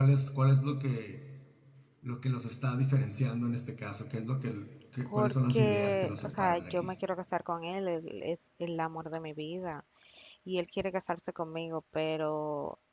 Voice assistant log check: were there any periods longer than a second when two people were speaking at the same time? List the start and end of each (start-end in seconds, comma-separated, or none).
5.1-6.9